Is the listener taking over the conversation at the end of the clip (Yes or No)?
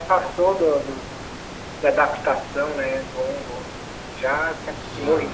No